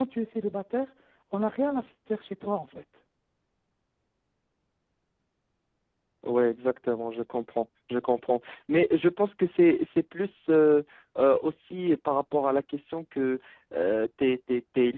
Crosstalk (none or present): none